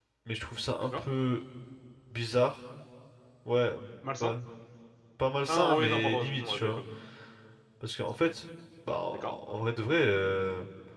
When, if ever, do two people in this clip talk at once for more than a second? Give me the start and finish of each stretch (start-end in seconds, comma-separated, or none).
5.5-6.8